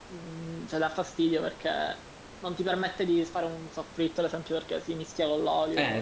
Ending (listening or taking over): taking over